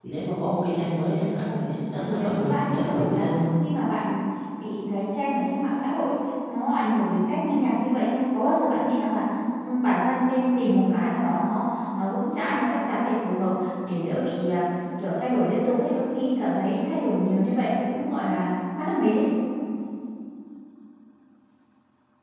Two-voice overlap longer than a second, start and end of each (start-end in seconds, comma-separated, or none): 2.0-3.3